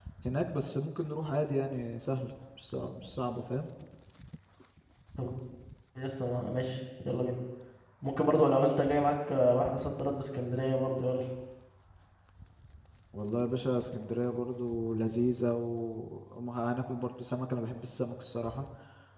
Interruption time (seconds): none

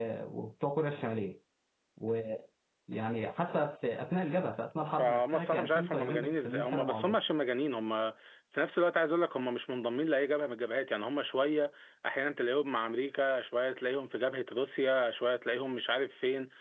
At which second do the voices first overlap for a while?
5.0 s

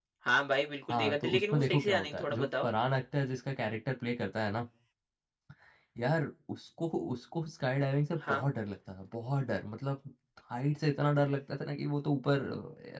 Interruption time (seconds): 0.9 s

